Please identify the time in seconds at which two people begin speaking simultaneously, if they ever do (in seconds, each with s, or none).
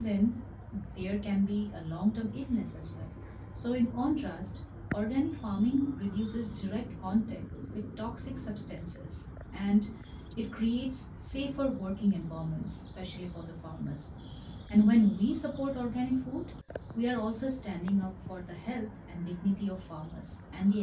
none